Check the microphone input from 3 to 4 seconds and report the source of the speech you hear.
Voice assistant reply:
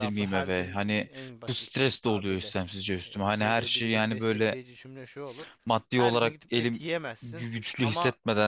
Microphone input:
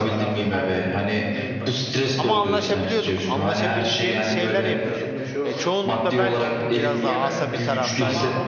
both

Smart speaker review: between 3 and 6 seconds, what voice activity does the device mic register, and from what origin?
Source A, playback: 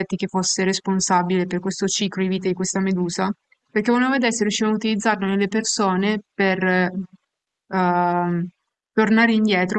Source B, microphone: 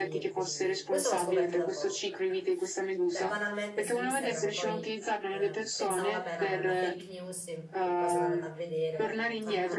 both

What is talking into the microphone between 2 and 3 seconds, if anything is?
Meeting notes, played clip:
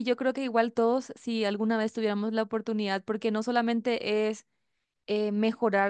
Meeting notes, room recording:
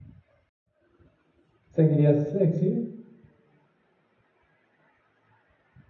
user only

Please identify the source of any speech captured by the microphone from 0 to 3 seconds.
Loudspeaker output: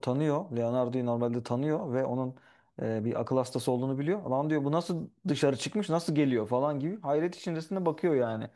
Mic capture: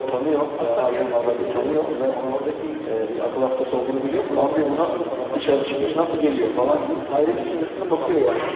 both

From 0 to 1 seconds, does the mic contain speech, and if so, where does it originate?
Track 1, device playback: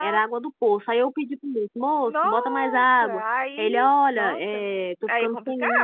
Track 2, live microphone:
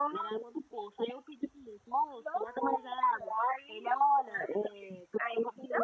echo only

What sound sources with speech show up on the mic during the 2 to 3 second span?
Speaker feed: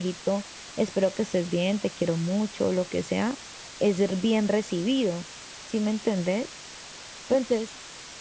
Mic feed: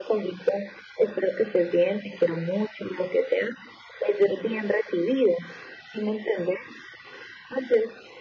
echo only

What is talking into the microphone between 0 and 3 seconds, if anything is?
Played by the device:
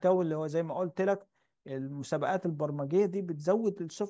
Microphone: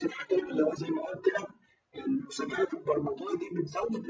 echo only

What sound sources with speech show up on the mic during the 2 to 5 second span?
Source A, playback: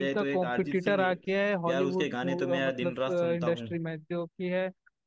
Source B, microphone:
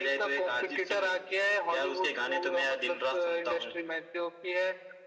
echo only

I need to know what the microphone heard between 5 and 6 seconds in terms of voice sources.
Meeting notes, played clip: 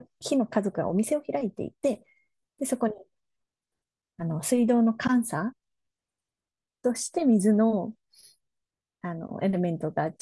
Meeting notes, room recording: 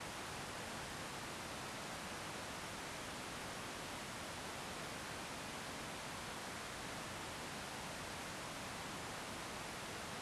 neither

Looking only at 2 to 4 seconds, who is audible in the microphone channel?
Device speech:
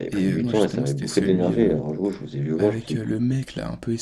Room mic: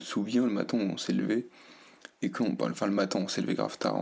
user only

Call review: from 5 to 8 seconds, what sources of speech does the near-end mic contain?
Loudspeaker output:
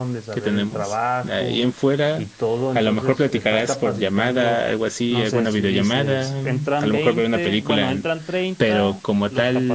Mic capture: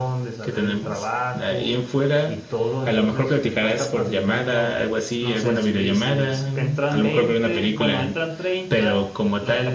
echo only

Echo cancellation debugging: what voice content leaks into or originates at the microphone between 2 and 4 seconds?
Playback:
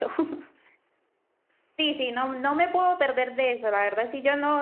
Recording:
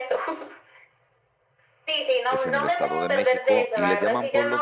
both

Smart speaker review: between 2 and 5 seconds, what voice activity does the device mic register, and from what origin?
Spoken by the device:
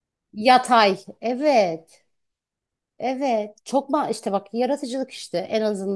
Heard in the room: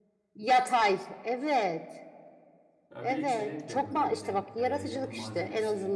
both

